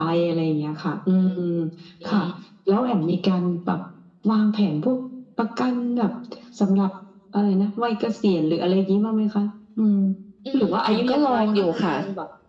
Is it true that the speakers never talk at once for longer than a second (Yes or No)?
No